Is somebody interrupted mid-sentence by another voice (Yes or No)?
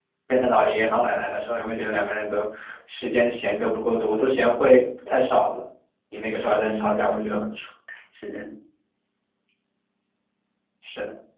Yes